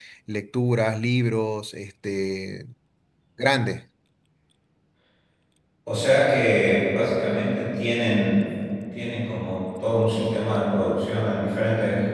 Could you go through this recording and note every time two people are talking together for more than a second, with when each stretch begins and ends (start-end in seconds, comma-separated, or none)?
none